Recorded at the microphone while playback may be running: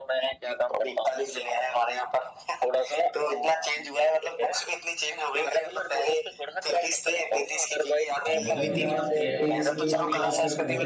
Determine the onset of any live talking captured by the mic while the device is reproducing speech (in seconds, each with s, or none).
8.3 s